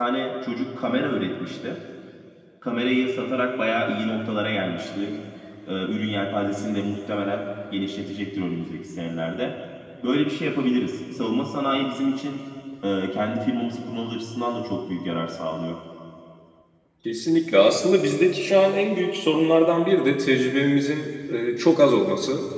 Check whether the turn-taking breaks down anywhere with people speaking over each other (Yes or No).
No